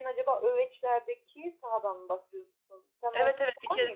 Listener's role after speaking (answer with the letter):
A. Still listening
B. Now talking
B